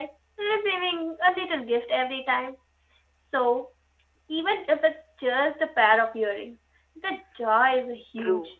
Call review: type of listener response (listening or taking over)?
taking over